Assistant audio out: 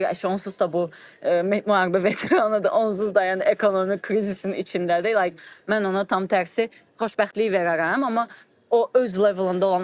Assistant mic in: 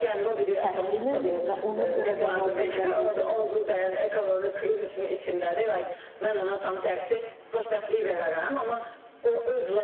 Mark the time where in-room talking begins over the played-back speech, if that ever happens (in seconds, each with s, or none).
0.6 s